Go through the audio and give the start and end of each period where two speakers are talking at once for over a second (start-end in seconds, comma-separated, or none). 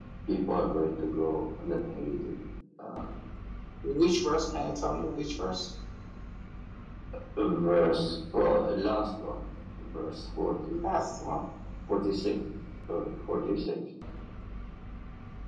none